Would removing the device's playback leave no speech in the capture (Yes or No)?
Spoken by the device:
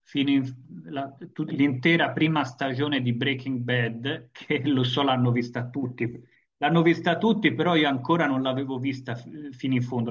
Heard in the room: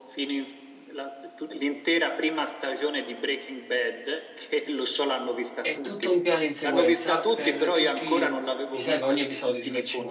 No